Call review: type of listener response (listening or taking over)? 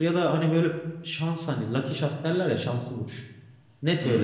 listening